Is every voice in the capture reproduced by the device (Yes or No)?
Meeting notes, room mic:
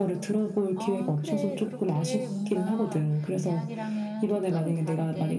No